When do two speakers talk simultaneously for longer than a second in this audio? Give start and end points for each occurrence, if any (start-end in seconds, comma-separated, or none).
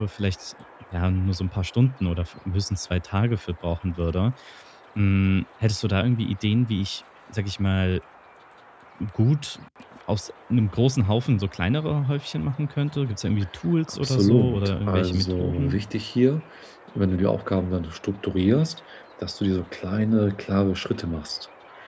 13.9-15.8